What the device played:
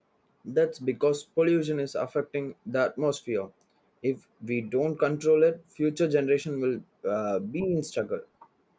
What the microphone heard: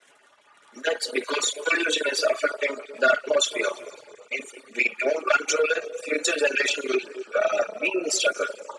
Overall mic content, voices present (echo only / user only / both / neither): echo only